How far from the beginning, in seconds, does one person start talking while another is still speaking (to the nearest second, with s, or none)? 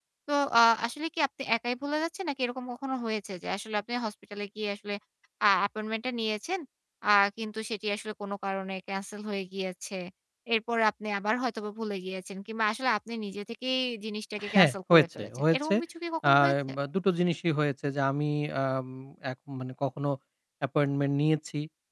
15 s